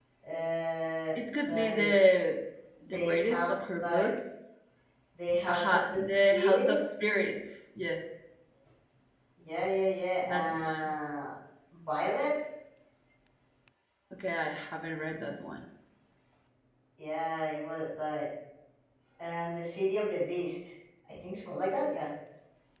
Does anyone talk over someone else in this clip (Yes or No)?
Yes